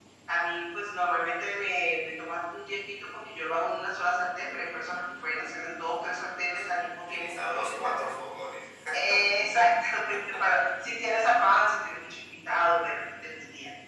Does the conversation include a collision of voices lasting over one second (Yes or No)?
Yes